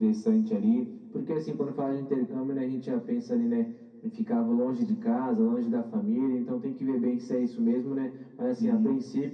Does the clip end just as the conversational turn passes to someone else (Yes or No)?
No